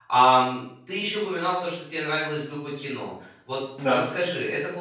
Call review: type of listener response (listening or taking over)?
listening